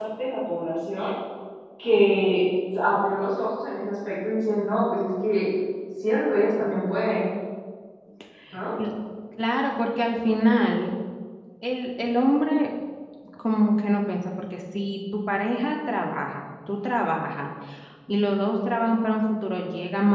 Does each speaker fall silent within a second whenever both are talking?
Yes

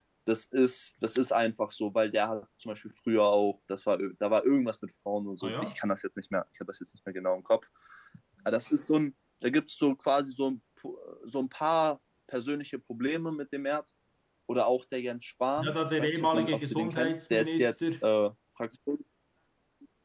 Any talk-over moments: Yes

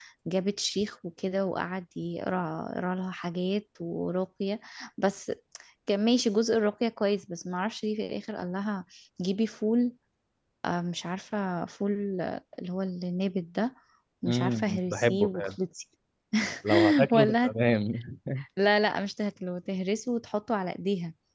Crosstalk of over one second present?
Yes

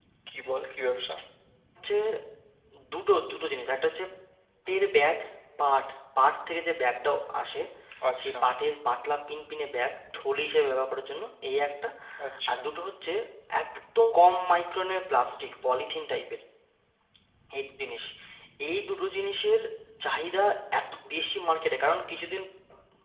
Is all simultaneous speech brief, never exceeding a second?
Yes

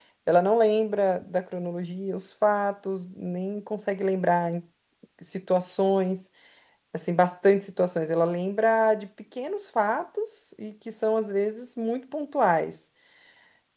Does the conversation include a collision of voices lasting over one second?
No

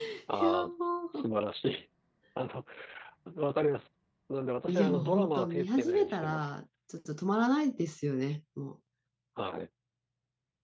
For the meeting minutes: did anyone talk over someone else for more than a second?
Yes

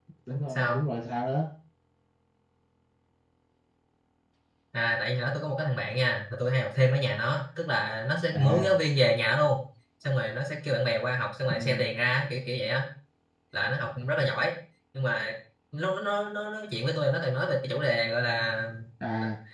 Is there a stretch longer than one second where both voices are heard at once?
No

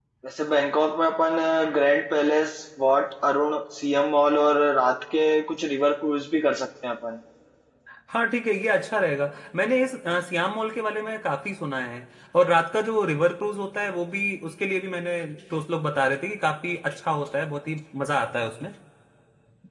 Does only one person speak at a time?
Yes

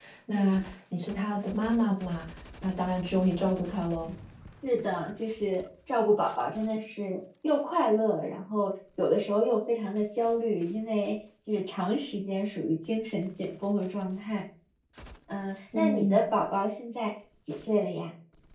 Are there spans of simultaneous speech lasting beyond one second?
No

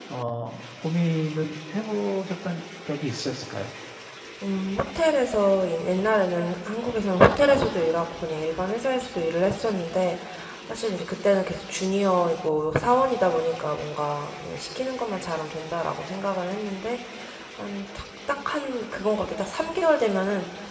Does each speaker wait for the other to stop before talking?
Yes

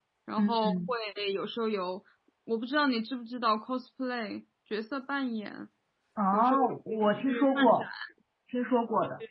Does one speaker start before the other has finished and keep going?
Yes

